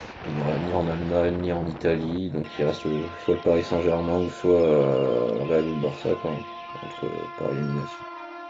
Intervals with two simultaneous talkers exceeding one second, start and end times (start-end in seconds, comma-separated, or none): none